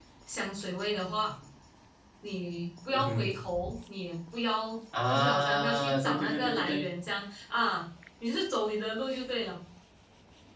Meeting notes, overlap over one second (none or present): present